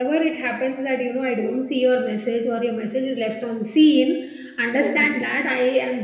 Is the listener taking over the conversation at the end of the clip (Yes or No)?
No